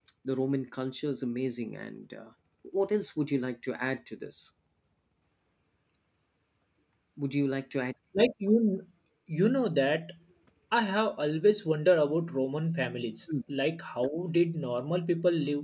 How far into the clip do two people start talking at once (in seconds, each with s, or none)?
none